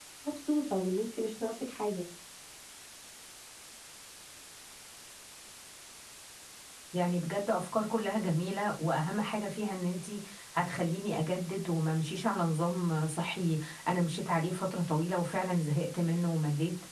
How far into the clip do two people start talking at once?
none

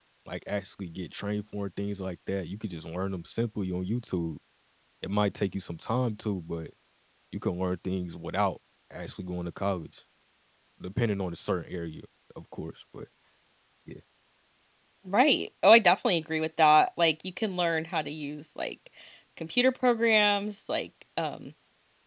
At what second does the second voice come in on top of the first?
none

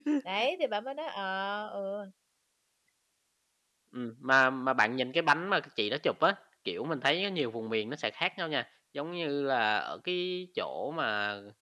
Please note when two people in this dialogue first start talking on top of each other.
none

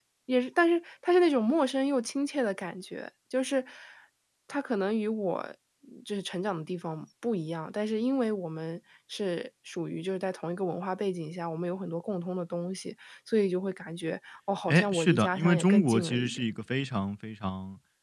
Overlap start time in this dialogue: 14.7 s

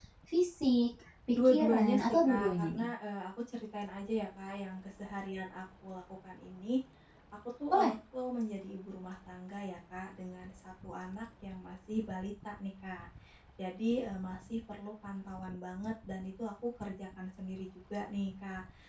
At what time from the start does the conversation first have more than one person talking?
1.3 s

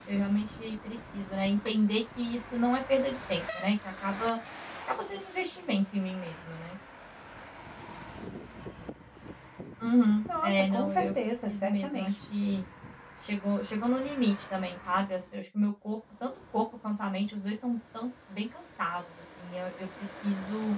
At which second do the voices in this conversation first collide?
10.4 s

